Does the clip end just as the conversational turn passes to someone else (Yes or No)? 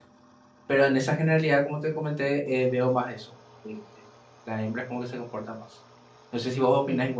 Yes